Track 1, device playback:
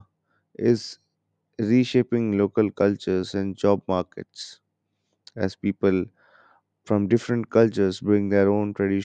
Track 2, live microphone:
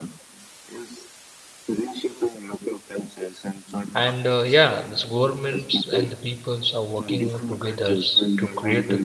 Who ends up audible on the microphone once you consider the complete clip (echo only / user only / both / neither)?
both